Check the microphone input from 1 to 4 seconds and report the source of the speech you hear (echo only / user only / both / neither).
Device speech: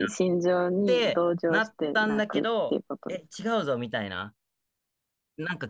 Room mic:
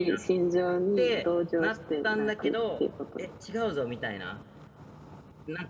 echo only